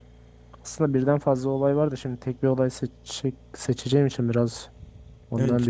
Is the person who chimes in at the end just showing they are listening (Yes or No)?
No